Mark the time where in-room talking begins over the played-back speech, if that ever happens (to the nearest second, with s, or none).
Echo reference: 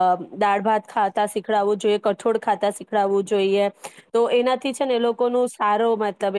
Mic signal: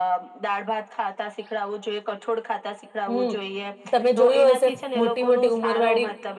3 s